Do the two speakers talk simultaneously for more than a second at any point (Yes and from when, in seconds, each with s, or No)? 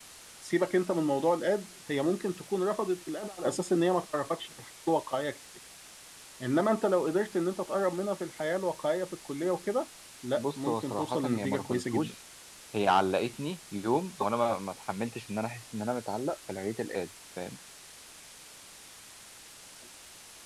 Yes, from 10.4 s